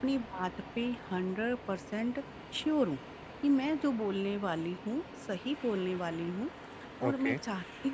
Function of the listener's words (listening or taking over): listening